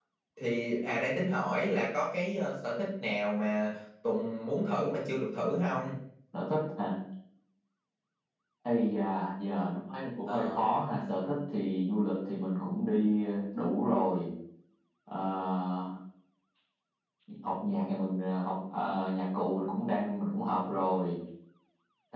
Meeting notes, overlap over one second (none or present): none